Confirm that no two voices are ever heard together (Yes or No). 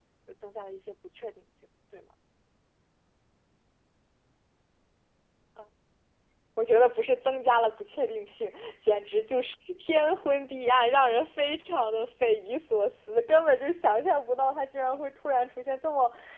Yes